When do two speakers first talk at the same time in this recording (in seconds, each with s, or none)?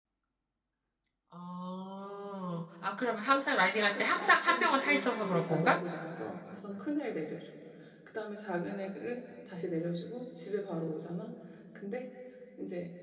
3.9 s